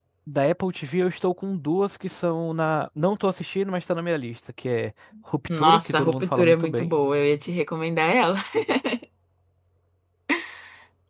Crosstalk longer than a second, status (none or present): present